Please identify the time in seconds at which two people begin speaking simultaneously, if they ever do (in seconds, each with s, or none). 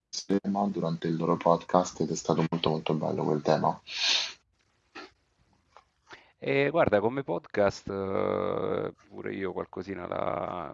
none